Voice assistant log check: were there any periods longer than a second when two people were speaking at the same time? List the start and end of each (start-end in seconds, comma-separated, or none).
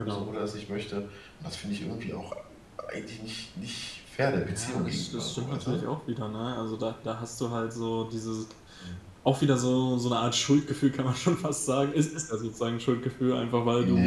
4.4-5.8